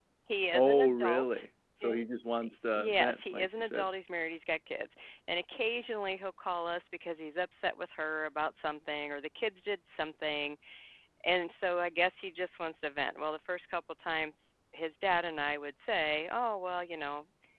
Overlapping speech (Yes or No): Yes